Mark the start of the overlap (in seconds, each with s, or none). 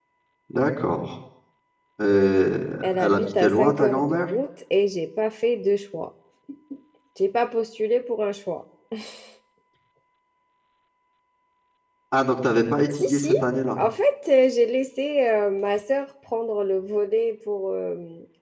3.0 s